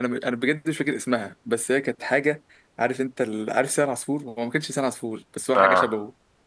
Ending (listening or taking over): listening